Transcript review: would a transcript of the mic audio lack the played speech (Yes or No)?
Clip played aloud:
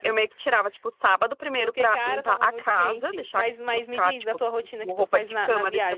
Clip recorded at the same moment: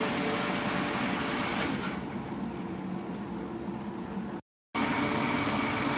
Yes